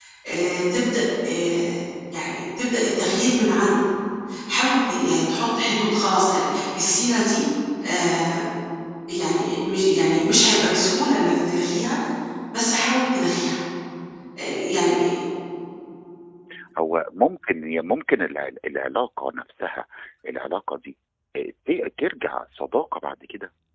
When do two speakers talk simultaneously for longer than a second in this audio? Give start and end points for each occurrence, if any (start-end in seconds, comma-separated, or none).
none